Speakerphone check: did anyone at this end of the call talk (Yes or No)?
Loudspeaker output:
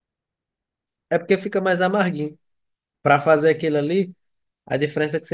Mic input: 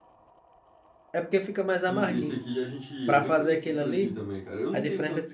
Yes